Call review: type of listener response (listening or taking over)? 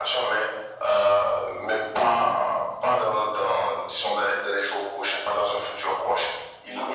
listening